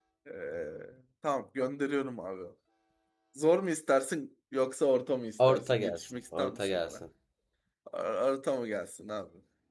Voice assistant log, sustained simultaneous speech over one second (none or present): present